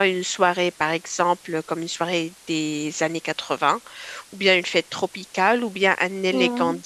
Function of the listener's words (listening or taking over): listening